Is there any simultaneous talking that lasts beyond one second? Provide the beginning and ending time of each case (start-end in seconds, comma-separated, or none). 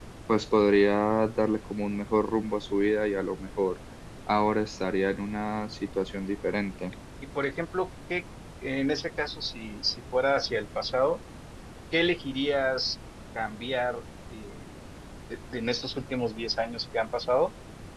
none